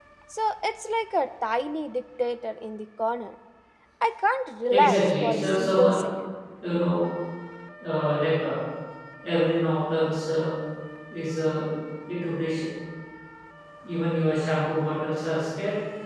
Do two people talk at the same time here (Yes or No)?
Yes